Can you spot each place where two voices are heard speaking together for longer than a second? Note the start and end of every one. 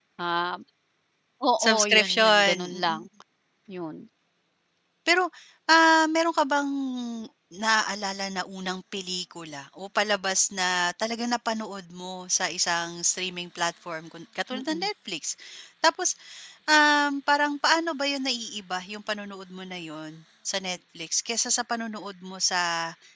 1.6-3.0

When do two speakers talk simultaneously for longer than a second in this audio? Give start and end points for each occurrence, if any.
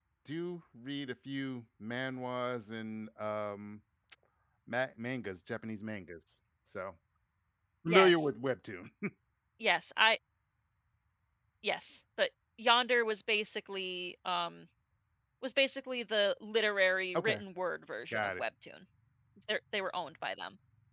none

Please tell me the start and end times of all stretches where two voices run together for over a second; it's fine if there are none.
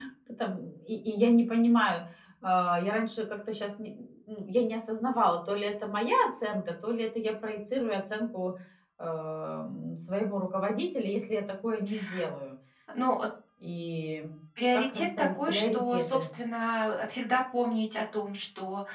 14.7-16.3

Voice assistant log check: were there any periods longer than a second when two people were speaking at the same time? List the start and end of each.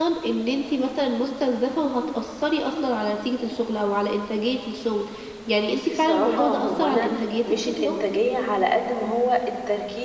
5.6-7.1

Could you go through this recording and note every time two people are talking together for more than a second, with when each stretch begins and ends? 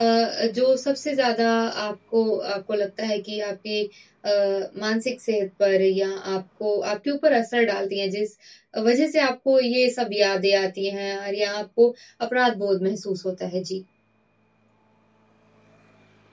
none

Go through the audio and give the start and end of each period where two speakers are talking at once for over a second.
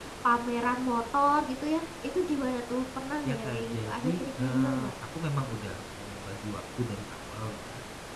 3.2-4.9

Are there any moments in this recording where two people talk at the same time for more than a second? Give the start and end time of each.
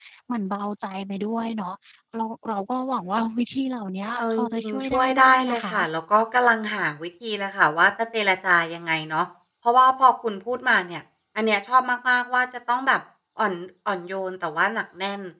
4.2-5.7

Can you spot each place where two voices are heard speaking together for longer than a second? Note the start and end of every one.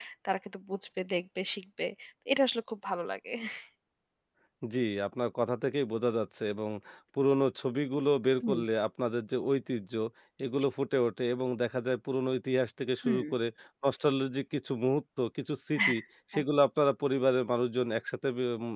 none

